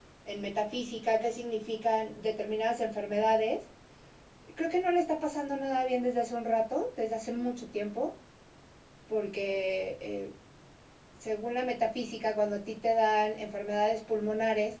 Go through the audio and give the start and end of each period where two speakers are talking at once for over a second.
none

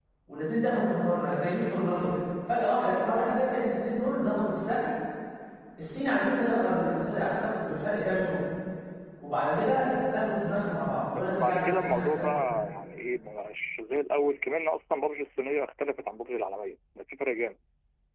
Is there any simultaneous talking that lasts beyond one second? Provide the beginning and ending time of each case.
11.1-12.3

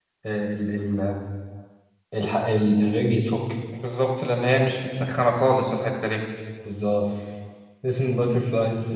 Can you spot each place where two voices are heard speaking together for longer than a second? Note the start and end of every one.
none

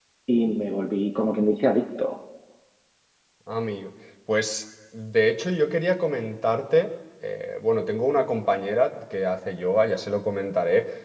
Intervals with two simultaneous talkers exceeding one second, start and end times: none

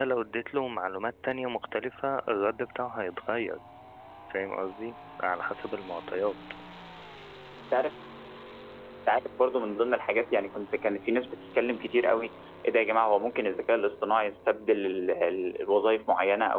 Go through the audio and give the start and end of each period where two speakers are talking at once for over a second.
none

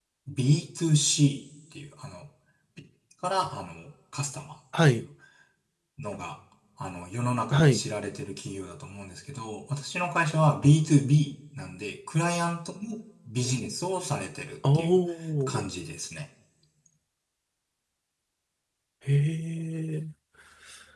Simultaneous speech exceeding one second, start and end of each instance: none

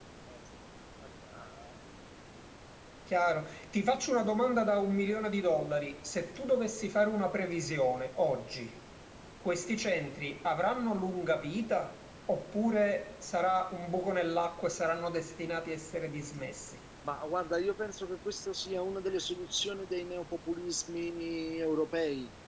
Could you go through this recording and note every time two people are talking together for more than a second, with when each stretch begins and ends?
none

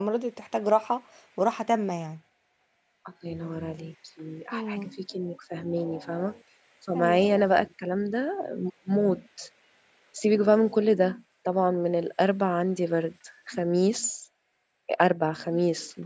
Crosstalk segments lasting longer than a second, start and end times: none

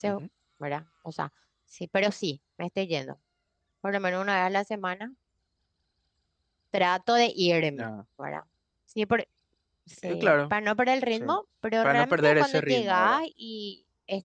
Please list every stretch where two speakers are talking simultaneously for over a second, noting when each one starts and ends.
11.8-13.2

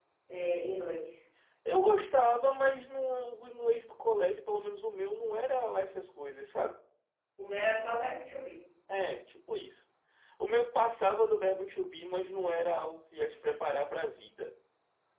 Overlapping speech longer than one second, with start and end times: none

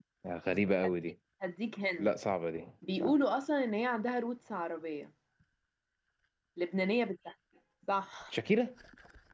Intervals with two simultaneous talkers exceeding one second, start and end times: none

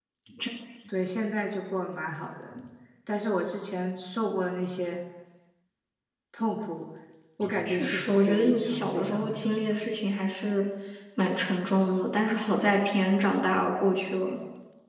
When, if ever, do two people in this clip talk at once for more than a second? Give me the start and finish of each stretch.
7.6-9.9

